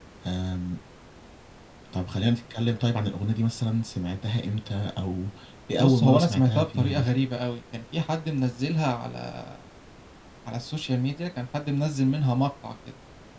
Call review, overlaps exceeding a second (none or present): present